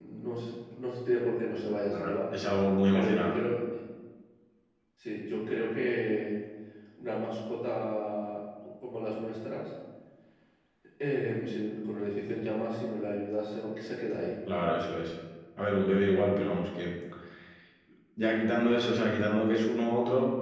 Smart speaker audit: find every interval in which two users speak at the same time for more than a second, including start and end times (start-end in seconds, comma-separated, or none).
none